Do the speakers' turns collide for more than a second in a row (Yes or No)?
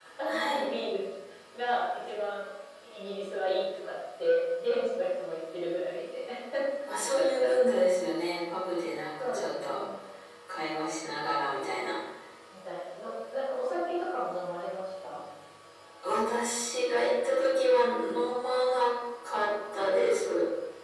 No